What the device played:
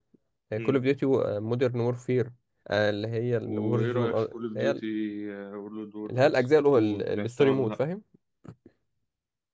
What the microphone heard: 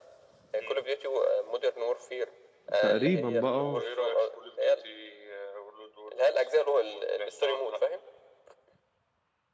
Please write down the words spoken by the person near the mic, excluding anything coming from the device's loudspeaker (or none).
تقريبا بقى آه.